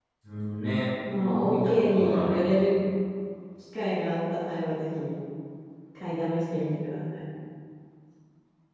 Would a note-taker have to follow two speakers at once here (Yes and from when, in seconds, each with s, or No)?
Yes, from 1.0 s